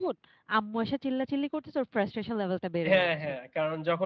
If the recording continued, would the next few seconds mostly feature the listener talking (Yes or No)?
Yes